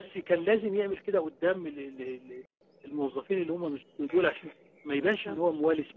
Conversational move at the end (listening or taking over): listening